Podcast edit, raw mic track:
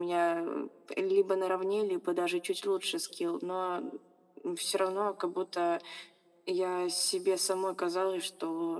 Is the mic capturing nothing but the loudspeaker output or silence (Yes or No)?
Yes